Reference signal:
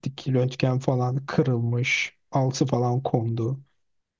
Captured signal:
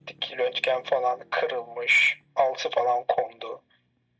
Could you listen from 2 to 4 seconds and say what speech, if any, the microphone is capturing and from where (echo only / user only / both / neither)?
echo only